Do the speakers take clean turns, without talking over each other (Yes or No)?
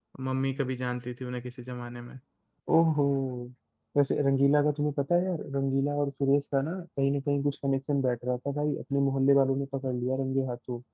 Yes